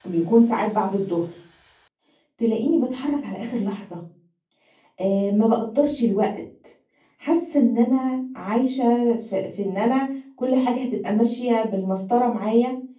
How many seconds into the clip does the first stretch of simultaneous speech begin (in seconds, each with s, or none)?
none